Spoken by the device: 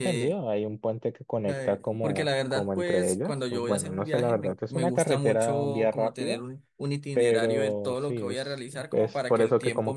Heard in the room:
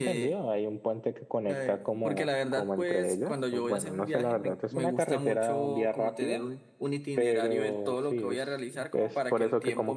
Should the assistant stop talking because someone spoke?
No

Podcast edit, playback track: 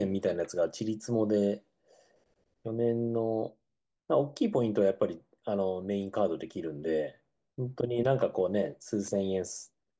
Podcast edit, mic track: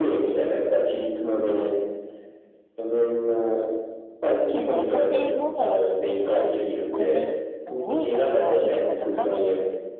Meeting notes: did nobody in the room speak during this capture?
No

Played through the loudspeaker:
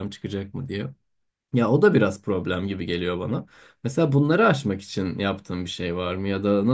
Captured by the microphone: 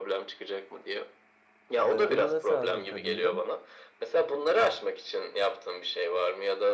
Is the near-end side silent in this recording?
No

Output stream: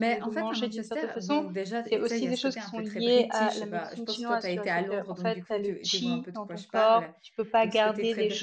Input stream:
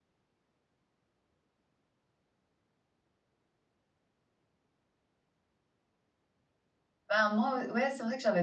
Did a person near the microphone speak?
Yes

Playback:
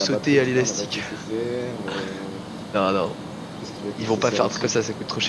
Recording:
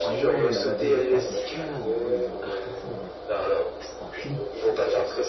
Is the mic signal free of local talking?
No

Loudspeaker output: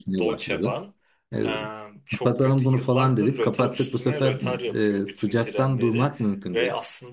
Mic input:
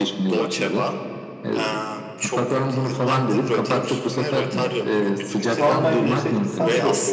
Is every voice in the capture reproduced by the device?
No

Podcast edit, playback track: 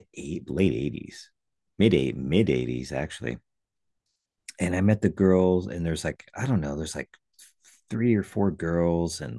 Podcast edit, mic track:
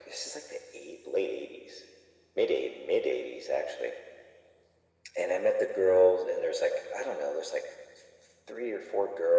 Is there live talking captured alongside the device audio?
No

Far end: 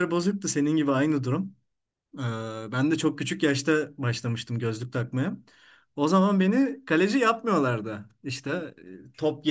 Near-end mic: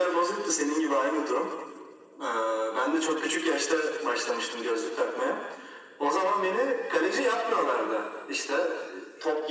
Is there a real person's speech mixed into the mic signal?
No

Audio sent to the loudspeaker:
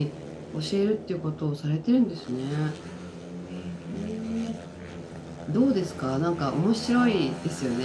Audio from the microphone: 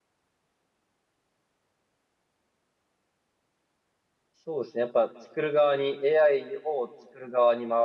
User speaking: Yes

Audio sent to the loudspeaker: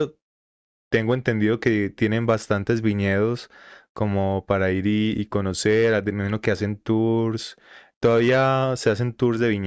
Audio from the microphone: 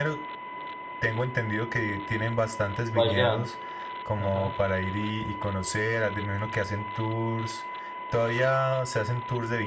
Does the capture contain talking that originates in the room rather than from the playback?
Yes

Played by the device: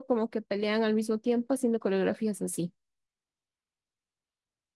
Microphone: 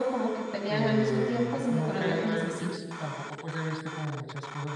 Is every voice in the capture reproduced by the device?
No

